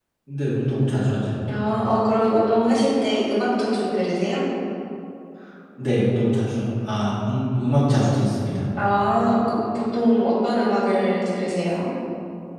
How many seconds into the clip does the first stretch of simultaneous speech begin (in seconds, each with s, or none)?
none